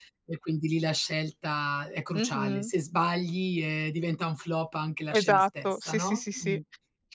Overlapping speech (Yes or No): Yes